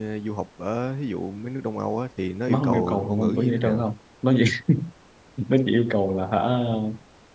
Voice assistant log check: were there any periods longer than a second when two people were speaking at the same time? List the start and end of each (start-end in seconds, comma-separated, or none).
2.5-3.9